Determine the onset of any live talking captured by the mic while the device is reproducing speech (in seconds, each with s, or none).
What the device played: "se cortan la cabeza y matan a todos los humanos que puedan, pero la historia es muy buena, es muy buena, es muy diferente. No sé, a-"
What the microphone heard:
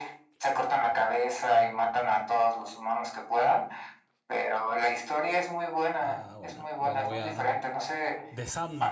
6.0 s